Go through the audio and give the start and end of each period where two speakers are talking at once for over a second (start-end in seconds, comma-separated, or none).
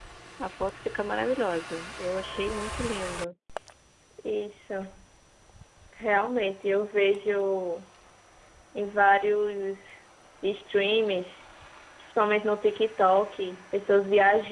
none